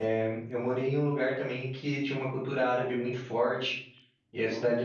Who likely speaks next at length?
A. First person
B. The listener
A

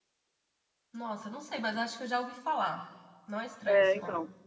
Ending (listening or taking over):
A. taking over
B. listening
A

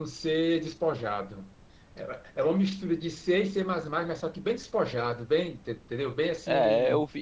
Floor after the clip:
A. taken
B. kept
A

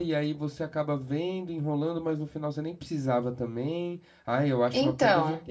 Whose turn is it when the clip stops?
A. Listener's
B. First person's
B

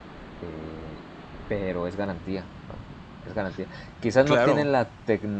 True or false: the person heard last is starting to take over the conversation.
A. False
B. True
A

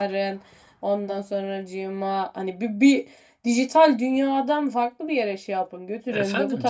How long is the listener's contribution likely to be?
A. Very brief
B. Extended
B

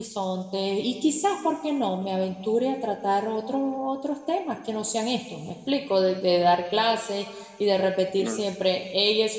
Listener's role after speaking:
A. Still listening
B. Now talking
A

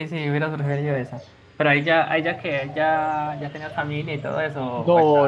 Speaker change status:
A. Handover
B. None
A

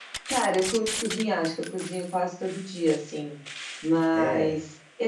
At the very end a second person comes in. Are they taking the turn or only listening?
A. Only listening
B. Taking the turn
A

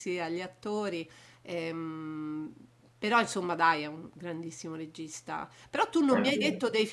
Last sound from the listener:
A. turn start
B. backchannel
B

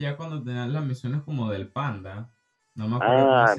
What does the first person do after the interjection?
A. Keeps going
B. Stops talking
B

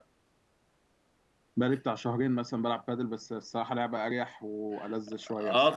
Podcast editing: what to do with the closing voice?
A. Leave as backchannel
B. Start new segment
B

